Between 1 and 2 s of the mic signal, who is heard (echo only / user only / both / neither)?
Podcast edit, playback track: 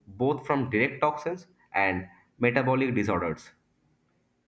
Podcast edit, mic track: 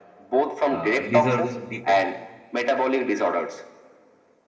both